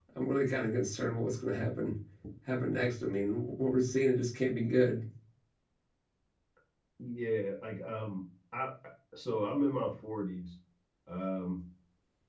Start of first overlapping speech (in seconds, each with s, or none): none